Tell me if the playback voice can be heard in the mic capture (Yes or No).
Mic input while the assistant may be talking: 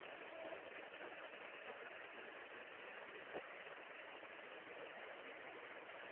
No